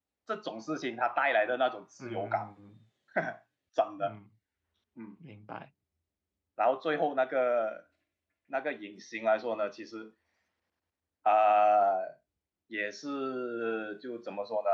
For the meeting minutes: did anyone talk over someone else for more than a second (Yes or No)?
No